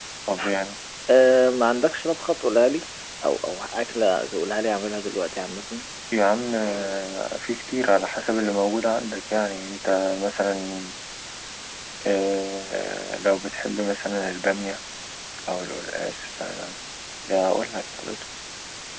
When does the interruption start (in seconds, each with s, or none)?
none